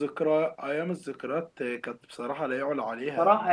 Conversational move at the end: taking over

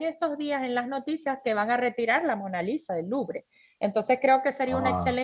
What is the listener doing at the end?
listening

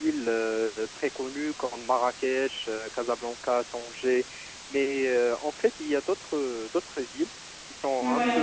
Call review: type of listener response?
listening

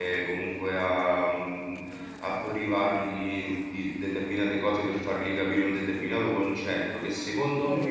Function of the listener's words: listening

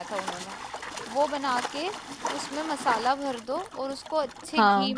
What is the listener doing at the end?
listening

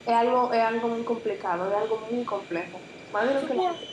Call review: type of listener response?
taking over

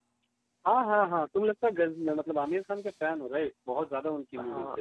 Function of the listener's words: taking over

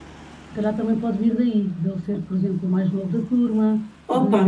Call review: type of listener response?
taking over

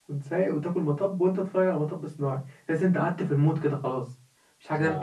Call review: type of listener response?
taking over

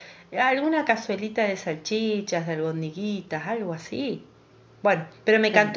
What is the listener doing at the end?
listening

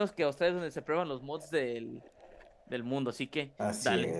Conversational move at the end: taking over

